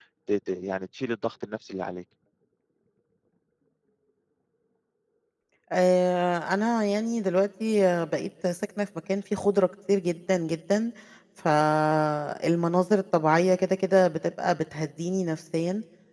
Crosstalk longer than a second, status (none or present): none